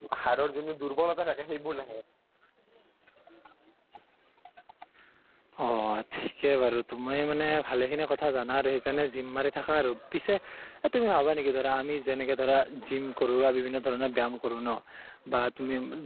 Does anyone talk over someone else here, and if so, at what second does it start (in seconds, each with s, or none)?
none